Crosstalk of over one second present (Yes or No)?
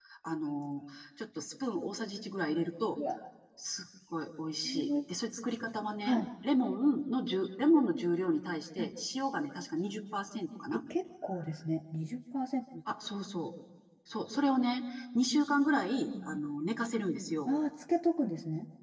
No